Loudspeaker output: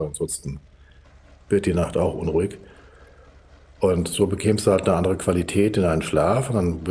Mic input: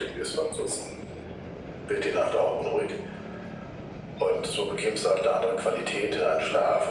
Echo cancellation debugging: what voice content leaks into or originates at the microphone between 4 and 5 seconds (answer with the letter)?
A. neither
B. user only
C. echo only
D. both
C